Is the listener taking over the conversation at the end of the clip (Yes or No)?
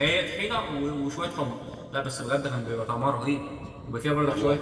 No